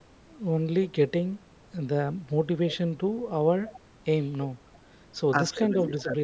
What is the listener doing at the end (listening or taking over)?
taking over